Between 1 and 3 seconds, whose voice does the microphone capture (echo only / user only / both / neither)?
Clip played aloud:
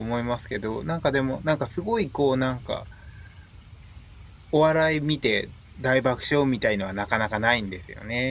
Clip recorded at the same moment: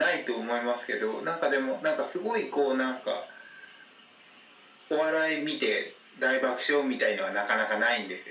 echo only